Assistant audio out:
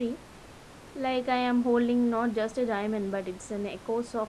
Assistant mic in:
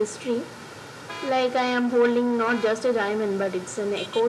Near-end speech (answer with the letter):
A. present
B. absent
B